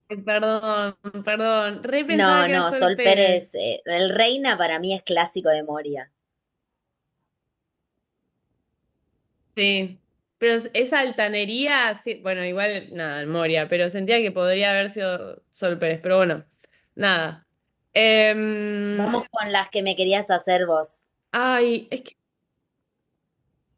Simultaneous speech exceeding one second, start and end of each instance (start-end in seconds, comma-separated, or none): 2.1-3.4